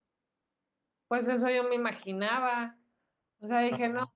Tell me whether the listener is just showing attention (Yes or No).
Yes